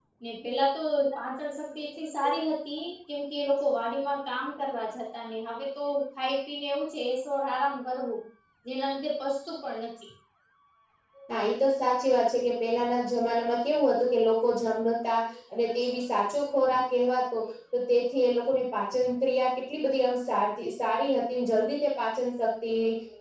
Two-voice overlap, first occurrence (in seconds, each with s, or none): none